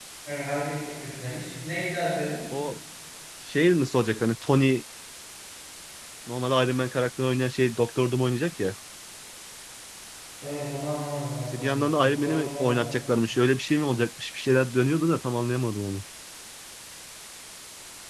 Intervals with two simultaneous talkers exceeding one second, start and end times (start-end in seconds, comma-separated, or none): 11.5-12.9